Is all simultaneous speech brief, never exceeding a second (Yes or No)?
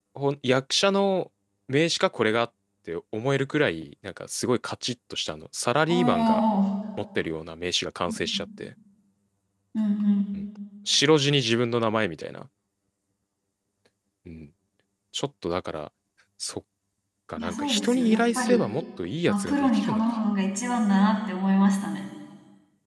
No